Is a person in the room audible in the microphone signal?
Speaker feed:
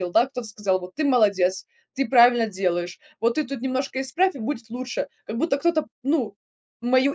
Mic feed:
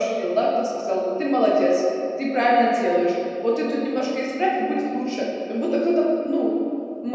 No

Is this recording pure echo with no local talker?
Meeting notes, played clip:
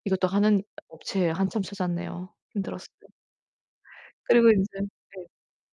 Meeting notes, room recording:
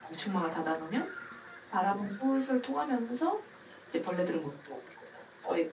No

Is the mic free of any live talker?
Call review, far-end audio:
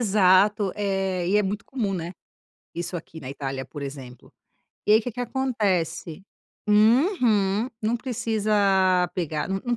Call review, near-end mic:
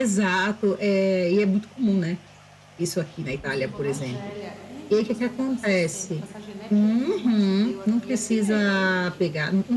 No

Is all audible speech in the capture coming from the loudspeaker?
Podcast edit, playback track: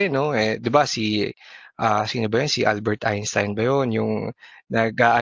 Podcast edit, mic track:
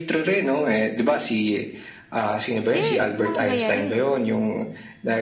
No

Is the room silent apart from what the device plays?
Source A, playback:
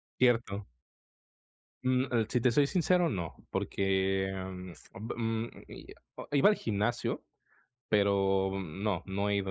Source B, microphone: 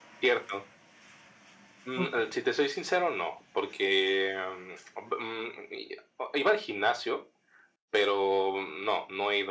No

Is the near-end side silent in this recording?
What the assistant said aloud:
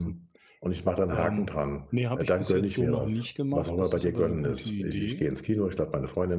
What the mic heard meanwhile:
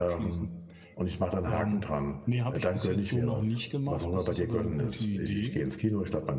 Yes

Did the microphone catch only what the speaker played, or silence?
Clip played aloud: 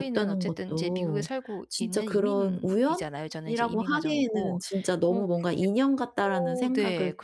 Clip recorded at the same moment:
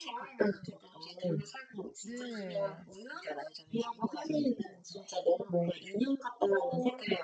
No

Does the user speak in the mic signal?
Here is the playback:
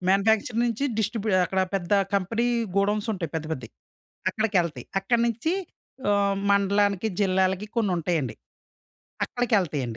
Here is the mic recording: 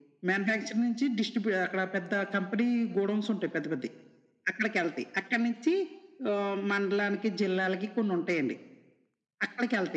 No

